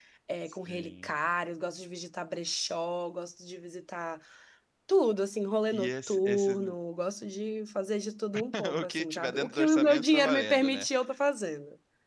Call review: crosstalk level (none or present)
present